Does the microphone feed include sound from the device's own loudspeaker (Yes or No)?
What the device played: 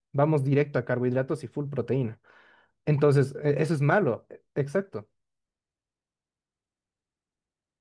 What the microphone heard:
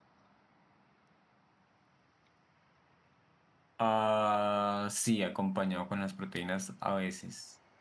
No